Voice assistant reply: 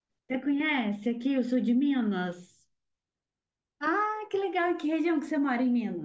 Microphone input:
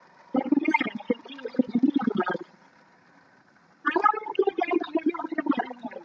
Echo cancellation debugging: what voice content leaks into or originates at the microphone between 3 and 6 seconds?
echo only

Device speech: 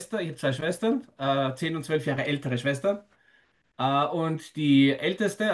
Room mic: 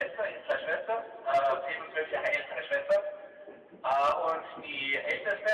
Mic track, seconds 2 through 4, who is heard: echo only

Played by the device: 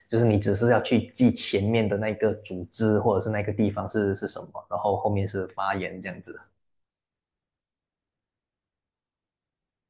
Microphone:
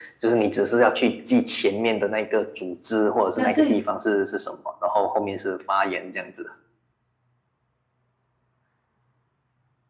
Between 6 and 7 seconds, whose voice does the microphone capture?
echo only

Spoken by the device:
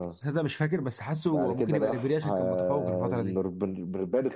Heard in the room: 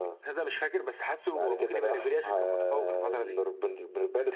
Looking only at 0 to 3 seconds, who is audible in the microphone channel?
echo only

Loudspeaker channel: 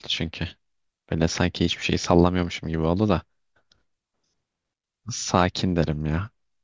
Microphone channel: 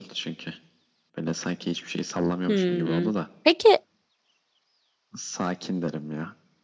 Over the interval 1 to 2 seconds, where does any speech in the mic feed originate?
echo only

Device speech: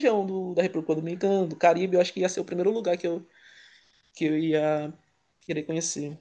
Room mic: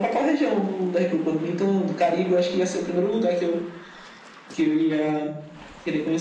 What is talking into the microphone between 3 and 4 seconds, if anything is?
echo only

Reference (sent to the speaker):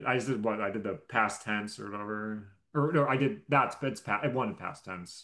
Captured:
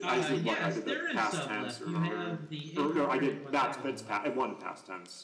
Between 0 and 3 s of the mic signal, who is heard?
both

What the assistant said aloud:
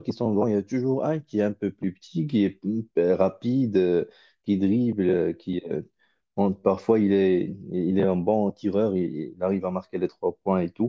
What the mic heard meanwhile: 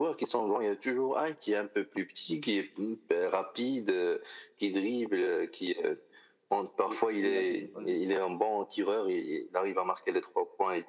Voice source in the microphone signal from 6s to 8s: both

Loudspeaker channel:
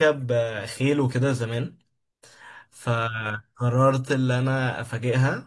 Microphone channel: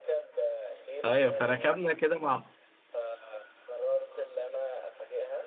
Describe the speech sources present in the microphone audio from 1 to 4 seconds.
both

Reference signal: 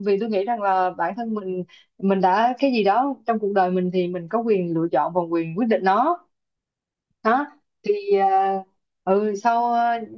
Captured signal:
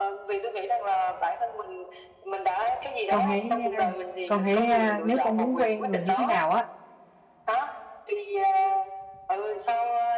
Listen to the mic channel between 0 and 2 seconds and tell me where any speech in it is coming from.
echo only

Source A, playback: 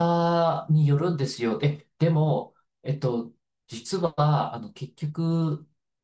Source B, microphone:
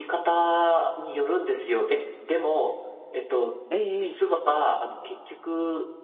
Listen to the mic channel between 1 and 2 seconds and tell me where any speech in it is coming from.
echo only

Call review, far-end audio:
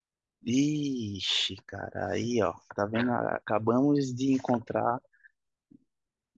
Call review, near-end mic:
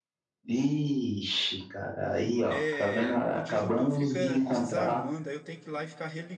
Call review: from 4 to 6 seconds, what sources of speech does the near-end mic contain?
both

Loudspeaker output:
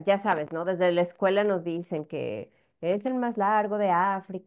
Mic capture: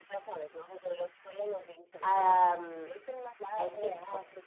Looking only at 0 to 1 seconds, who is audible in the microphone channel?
echo only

